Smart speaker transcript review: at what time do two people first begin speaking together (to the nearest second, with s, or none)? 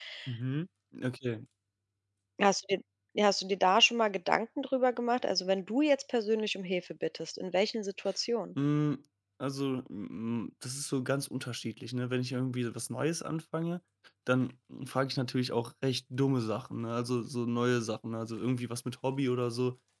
none